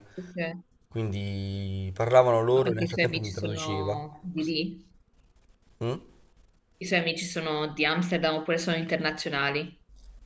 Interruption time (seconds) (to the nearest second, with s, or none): 3 s